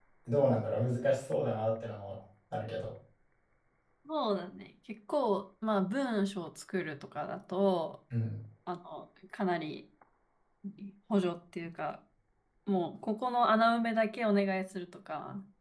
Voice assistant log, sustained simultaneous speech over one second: none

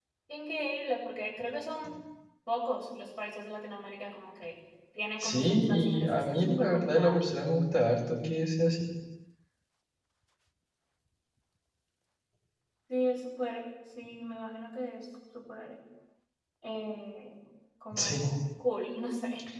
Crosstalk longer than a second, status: present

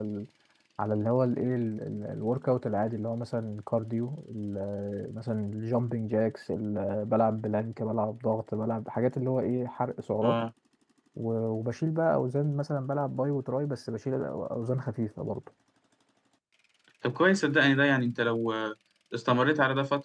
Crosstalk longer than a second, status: none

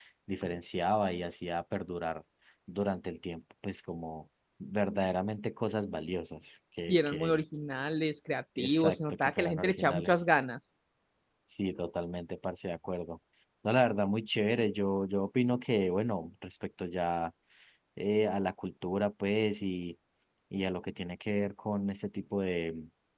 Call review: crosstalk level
present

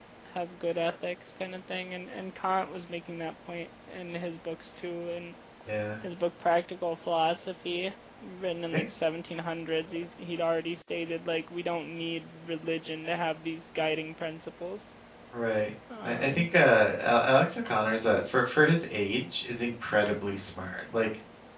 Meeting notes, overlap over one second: none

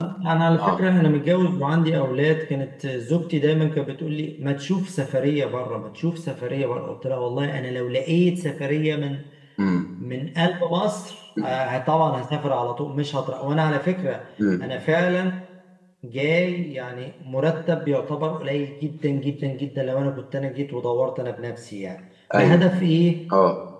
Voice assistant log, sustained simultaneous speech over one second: none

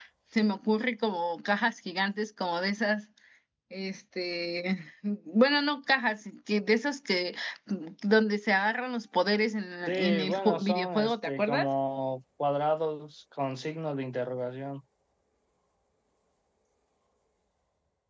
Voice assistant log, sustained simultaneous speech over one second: present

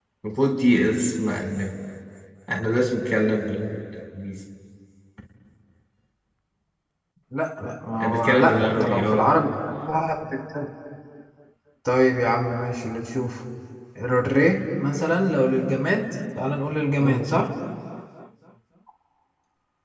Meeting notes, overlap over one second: present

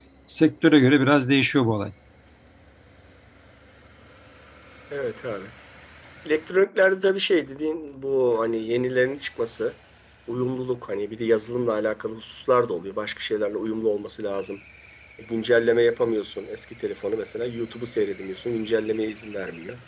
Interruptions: none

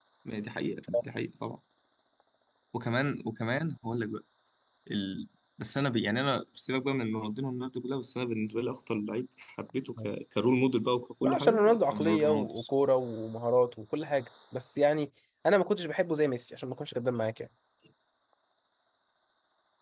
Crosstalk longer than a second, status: present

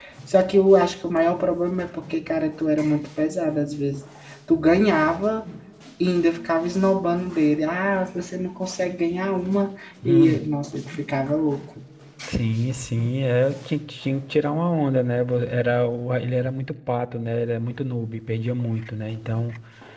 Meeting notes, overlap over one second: none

